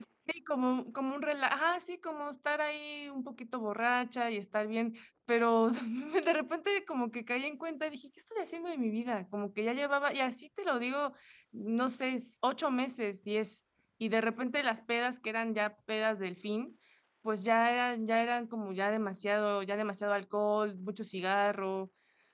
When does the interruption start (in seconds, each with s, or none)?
none